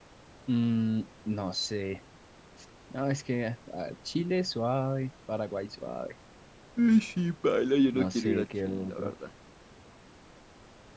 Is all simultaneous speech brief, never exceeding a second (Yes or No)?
No